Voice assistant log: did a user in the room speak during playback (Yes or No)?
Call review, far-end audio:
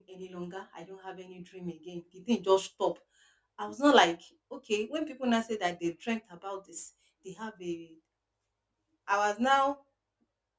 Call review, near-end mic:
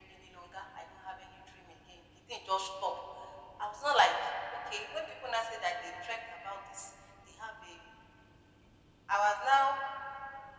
No